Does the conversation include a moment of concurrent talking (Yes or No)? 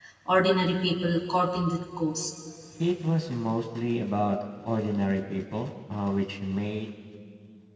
No